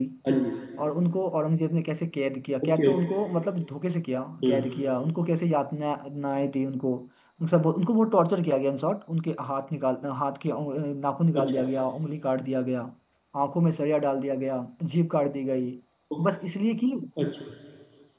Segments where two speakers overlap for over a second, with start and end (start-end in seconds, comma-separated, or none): none